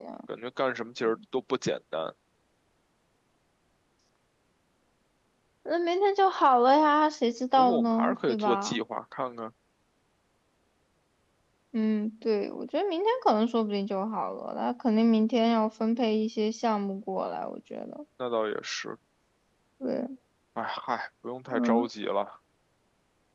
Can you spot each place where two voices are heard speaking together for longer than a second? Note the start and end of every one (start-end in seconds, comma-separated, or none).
7.6-8.8